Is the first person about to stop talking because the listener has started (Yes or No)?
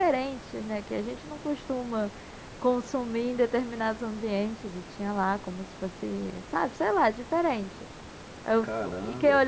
No